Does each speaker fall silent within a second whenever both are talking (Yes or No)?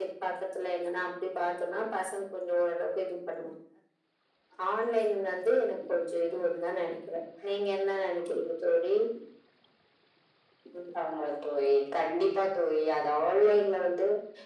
Yes